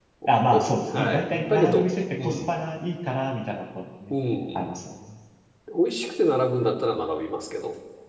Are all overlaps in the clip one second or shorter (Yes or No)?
No